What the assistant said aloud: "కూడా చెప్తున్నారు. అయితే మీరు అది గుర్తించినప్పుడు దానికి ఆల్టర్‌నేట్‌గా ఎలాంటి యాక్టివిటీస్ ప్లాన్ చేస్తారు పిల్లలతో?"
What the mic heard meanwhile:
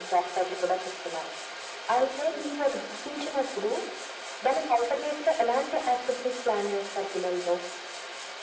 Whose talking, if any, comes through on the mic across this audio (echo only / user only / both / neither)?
echo only